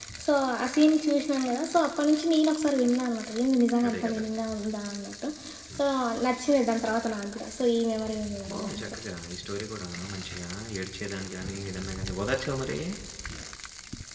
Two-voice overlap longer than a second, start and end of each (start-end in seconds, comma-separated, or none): none